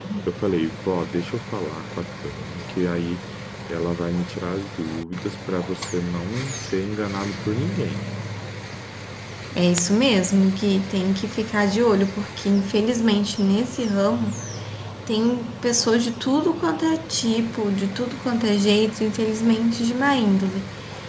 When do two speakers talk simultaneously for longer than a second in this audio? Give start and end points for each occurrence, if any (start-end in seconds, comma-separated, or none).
none